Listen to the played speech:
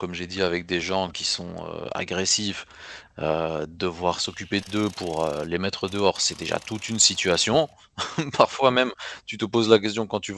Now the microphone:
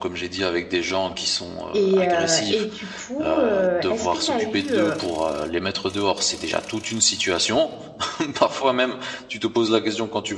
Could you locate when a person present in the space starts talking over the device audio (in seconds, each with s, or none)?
1.7 s